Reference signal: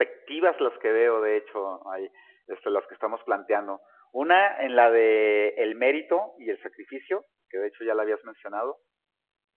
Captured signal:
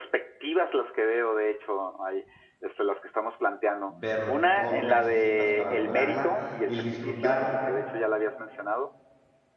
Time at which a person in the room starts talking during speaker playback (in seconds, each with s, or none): 3.9 s